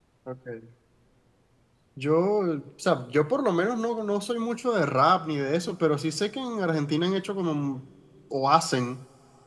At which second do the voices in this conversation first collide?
none

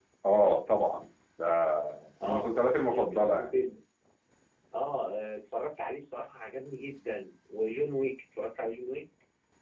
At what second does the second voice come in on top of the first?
2.2 s

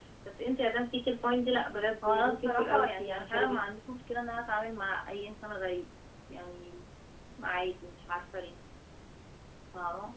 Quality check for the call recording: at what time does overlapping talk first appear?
2.0 s

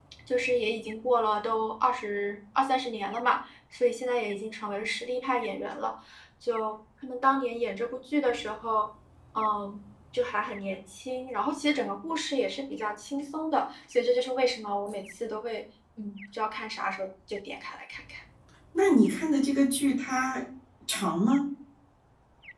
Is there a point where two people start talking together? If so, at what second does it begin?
none

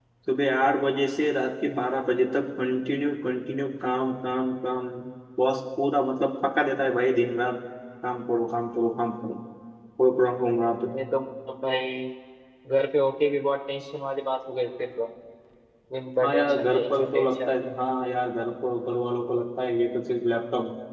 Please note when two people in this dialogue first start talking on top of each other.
16.2 s

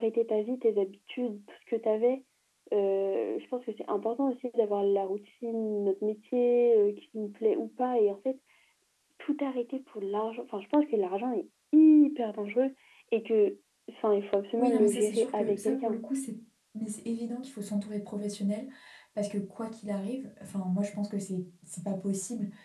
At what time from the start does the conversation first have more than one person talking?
14.6 s

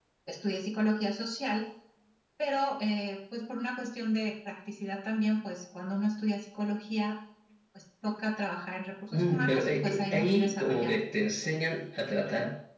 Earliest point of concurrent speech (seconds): 9.1 s

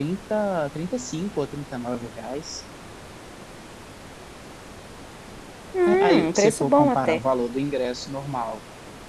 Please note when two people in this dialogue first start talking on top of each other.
5.9 s

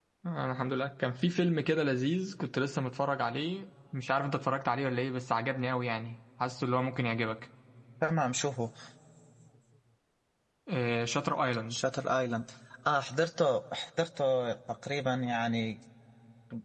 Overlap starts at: none

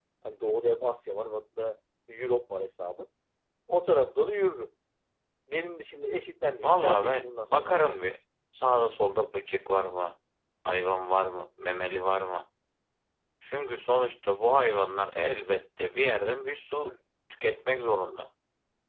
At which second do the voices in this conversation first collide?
6.6 s

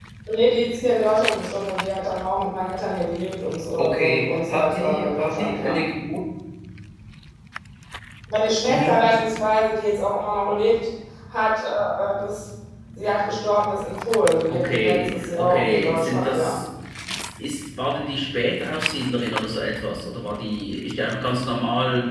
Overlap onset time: 3.8 s

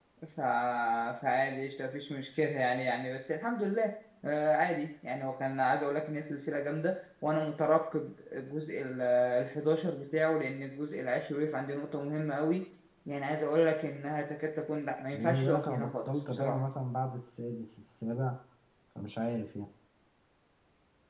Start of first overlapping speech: 15.1 s

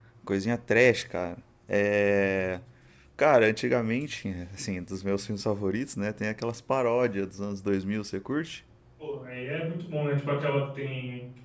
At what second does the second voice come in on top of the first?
none

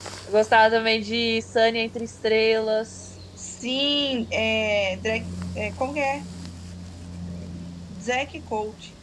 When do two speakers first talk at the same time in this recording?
none

